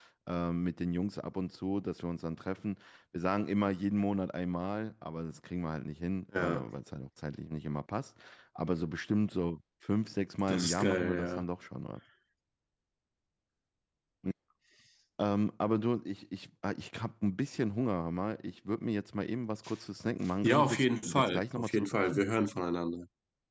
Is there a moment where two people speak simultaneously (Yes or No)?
Yes